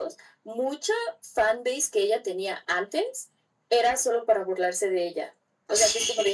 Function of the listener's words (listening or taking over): listening